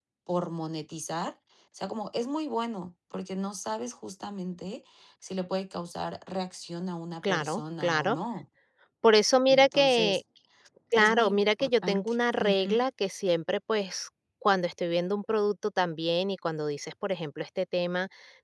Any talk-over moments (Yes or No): Yes